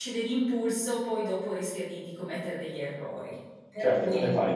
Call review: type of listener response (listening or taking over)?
taking over